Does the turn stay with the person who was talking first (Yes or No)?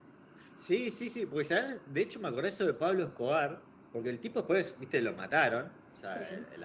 Yes